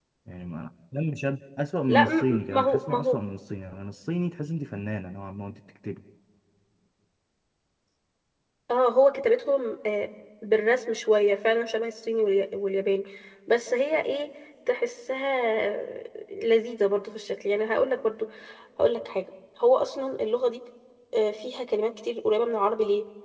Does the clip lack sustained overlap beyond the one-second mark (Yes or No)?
No